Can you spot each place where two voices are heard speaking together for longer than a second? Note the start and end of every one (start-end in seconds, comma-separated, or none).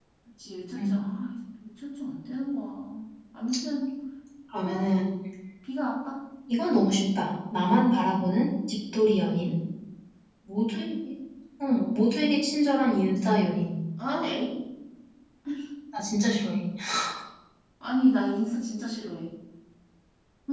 none